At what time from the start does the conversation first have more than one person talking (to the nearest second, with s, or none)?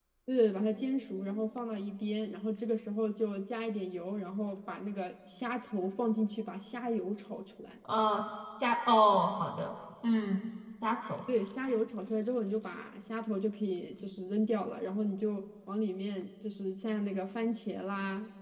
none